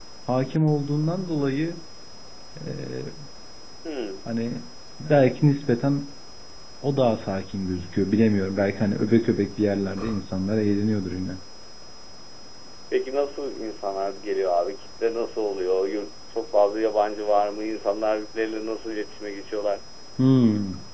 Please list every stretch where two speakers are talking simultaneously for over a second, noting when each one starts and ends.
none

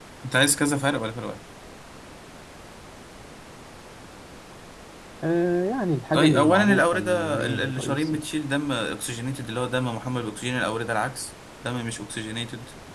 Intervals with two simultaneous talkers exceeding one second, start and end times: 6.1-8.2

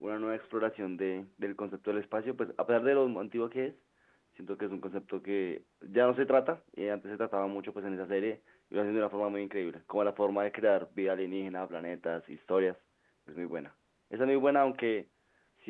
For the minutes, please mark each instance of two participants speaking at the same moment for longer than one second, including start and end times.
none

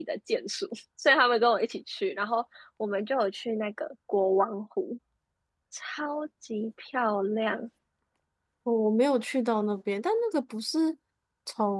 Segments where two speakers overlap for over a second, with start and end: none

